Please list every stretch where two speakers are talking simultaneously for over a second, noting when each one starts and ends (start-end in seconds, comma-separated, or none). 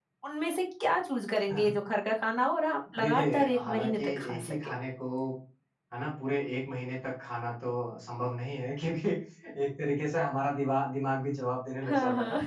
3.0-4.5